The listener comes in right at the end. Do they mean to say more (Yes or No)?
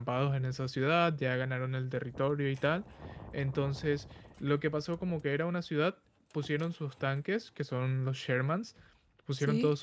No